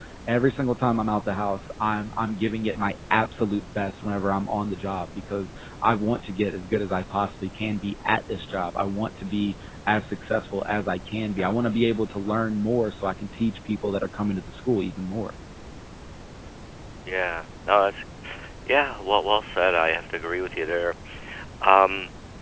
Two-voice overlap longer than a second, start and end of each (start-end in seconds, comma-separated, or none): none